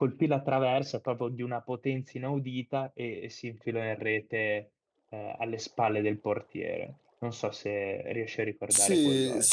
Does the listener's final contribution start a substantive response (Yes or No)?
Yes